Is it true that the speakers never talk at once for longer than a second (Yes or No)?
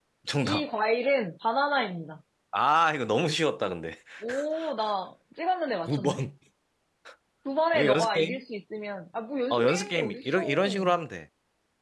No